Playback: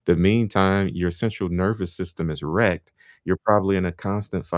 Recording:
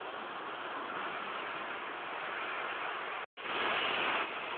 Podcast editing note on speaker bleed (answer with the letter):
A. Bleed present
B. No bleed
B